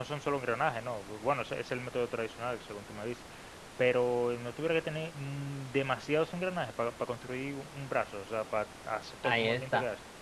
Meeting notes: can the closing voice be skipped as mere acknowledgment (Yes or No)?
No